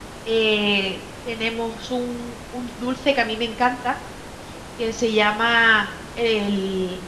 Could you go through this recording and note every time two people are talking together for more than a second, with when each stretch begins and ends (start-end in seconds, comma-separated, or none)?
none